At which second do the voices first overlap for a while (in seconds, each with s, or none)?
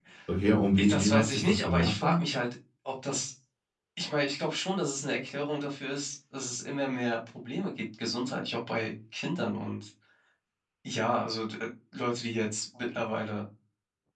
0.8 s